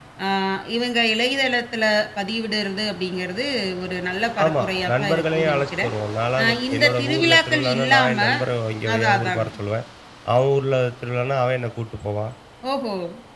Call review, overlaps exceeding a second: present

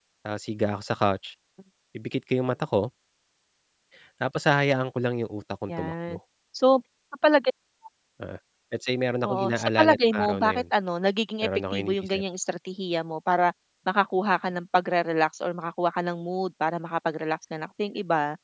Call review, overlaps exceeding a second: present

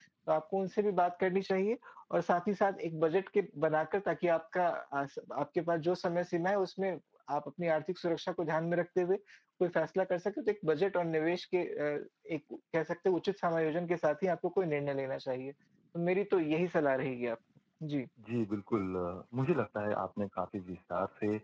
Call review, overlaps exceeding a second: none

